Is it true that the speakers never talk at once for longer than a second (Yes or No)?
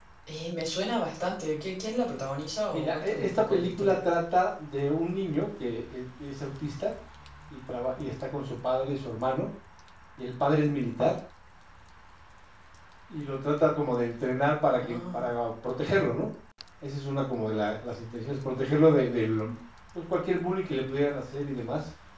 No